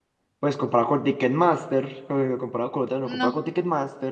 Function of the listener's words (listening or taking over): listening